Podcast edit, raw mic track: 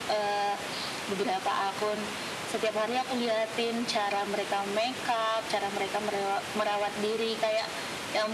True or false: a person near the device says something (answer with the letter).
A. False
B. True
A